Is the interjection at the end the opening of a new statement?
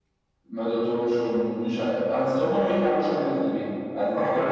Yes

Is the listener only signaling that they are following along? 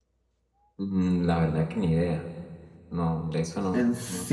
No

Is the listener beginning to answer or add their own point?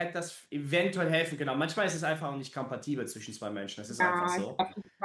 Yes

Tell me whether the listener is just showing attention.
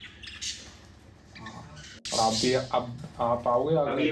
No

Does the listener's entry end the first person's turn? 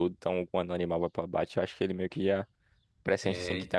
No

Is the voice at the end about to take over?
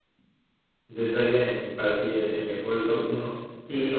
Yes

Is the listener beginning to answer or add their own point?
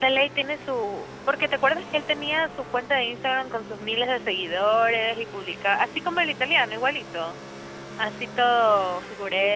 Yes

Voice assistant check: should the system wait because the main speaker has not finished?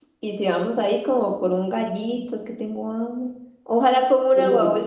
Yes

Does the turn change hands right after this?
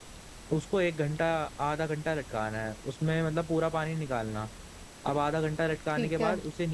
No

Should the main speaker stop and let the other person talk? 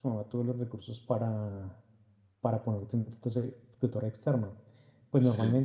No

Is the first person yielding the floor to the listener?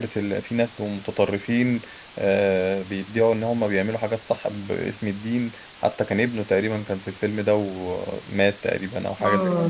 Yes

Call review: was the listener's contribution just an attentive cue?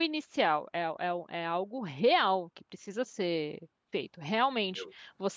Yes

